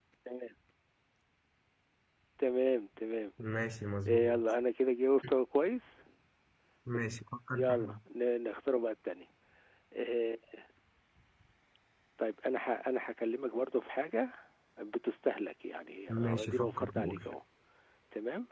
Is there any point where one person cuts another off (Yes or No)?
Yes